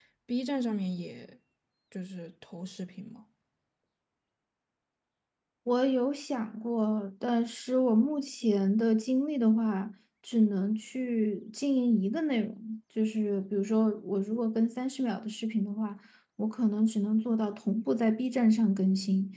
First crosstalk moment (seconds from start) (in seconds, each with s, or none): none